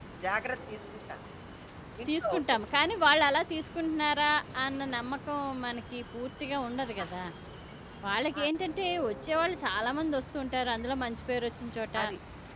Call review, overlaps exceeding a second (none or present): none